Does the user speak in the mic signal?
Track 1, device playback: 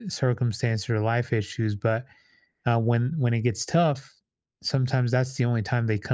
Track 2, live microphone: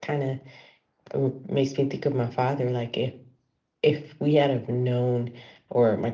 Yes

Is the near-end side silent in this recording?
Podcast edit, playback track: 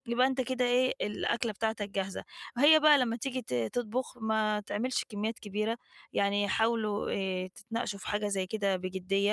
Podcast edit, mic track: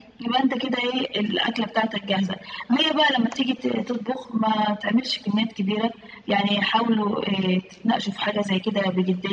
Yes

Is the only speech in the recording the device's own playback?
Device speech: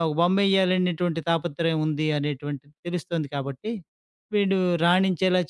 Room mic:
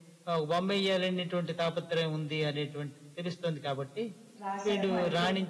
No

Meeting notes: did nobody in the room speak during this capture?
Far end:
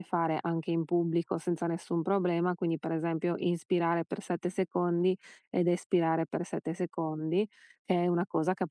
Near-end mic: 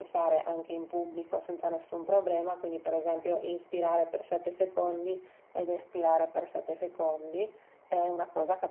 Yes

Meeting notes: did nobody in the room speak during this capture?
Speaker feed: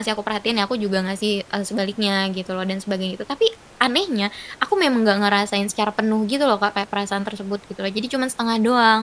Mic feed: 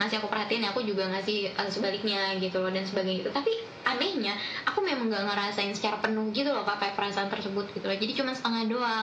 Yes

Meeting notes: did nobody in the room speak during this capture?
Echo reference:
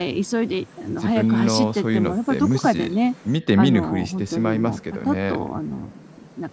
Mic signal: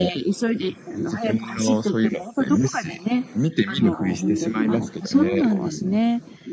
No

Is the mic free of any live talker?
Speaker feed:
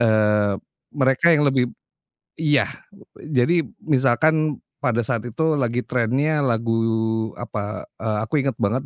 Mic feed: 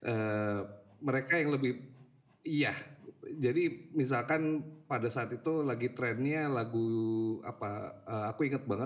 Yes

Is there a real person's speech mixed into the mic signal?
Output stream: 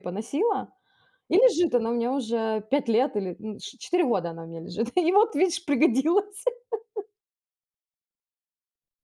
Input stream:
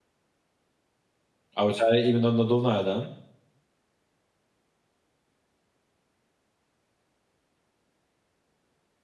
Yes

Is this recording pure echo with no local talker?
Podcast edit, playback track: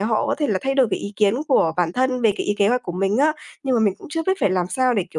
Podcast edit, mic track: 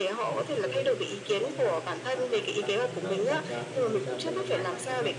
No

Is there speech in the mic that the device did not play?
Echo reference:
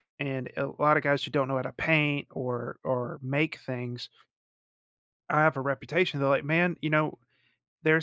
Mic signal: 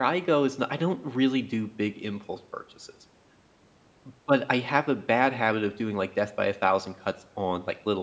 Yes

